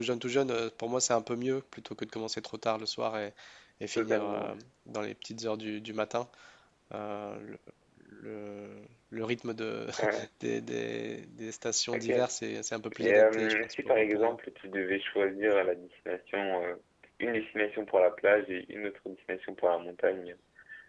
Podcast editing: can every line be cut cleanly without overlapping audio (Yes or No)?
No